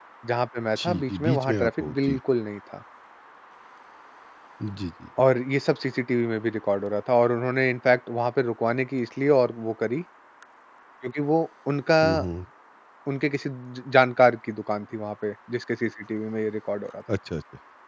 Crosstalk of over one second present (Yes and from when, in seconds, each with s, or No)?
Yes, from 0.8 s